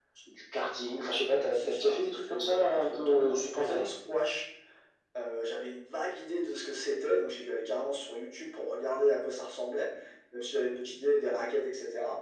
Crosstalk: present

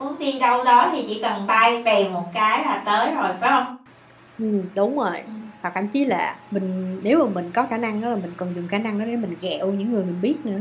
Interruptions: none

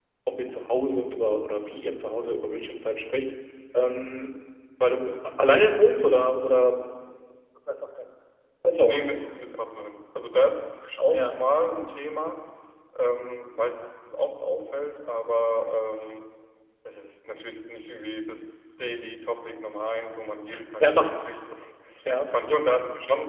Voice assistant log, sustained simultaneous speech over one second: none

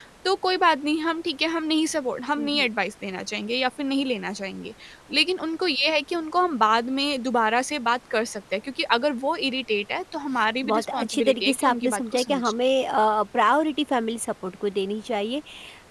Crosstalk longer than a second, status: present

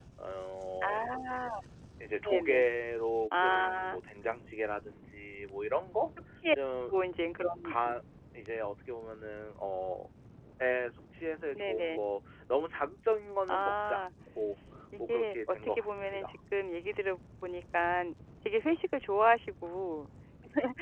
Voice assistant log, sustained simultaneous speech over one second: present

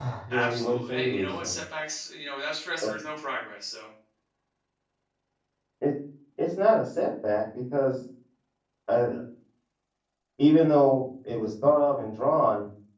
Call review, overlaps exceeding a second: present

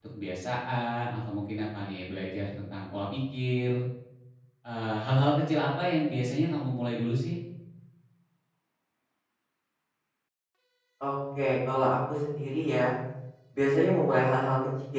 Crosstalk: none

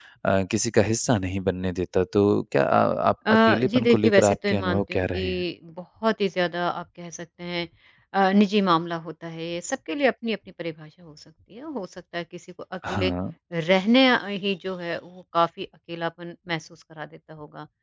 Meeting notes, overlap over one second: present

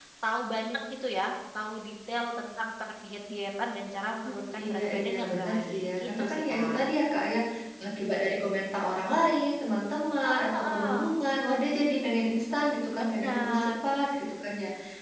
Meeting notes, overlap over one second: present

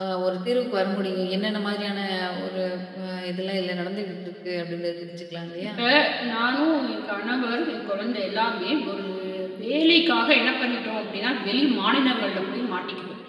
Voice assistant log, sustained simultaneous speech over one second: none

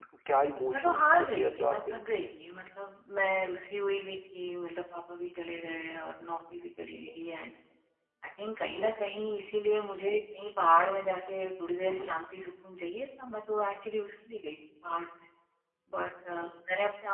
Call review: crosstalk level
present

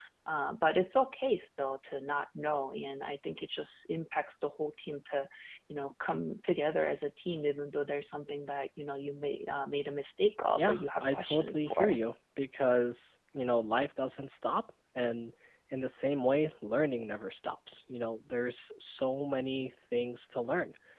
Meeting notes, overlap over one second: present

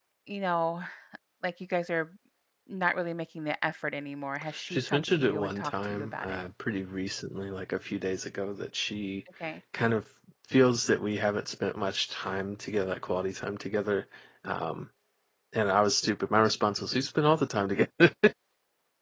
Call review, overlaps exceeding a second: present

